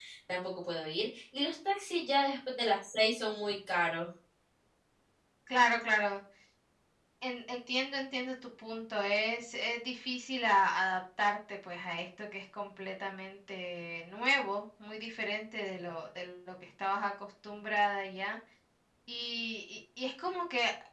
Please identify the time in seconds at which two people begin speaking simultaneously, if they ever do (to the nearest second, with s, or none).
none